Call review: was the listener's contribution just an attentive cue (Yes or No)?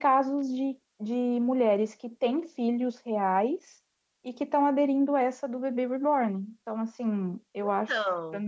Yes